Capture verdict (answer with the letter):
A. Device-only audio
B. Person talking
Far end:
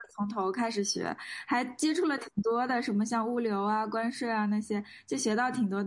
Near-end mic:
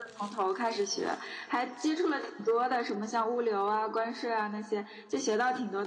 A